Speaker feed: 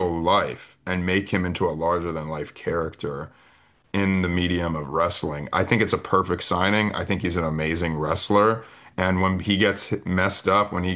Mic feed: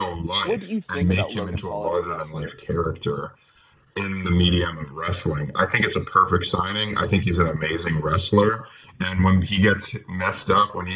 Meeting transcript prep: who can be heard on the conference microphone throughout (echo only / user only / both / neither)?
both